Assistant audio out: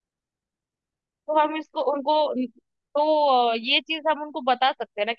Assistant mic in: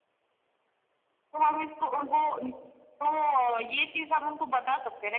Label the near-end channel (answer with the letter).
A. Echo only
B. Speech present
A